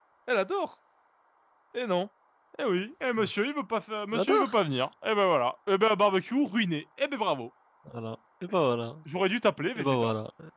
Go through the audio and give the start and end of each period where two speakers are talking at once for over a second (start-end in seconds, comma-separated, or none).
none